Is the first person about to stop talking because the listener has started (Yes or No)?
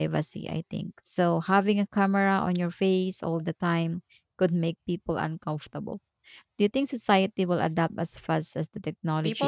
Yes